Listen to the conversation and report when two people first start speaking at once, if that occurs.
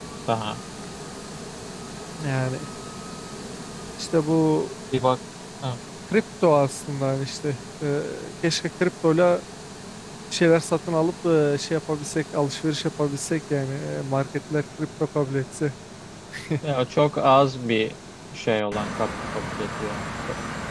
none

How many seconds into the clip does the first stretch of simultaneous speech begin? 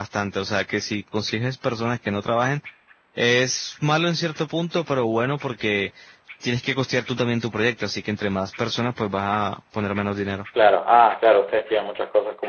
none

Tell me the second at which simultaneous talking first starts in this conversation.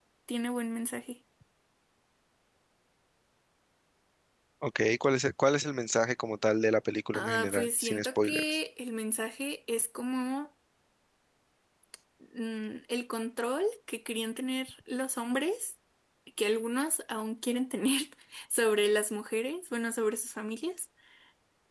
7 s

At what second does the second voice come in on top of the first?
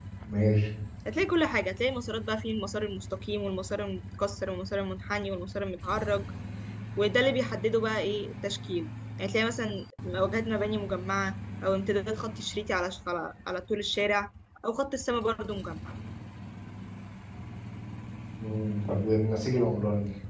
none

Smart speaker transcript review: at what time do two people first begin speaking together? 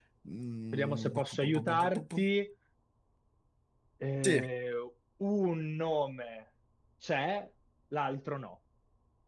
1 s

